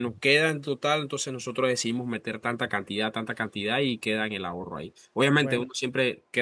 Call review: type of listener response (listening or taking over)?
listening